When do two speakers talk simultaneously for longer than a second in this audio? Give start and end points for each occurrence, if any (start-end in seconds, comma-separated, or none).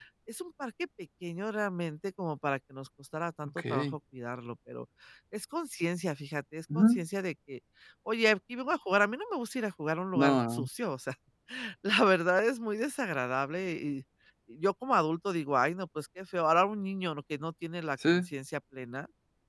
none